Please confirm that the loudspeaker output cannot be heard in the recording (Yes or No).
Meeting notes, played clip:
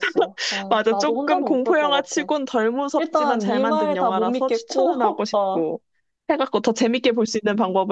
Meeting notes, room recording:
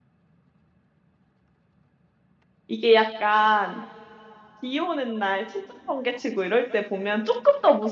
Yes